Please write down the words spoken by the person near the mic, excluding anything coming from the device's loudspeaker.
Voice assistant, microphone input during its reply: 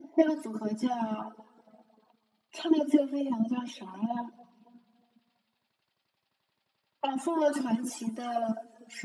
none

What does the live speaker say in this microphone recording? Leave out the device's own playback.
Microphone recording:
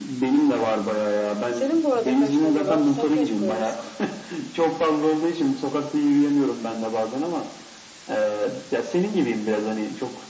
Senin bu arada kaç tane var? Sen kaç koyarsın?

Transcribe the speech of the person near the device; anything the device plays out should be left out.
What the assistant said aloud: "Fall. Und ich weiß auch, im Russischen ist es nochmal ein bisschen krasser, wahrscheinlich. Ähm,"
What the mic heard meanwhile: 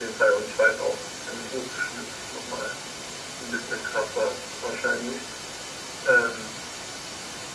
none

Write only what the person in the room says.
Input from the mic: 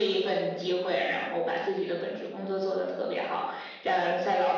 none

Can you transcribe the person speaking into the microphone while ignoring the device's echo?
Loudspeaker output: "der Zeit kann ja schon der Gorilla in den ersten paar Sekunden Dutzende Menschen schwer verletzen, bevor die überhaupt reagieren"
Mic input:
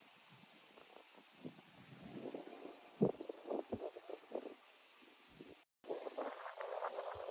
none

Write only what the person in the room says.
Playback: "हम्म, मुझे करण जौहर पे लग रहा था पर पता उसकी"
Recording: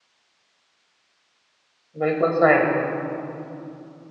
बिल्कुल सही

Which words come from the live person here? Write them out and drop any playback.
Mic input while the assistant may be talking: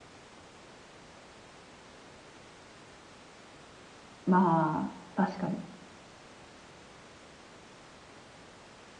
まあ、確かに。

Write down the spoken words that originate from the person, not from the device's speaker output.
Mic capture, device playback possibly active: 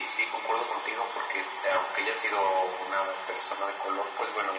none

